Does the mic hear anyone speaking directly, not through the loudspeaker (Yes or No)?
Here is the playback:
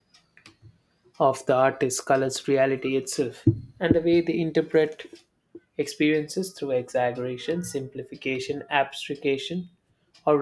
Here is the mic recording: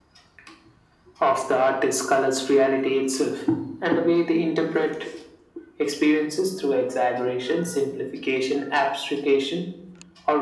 No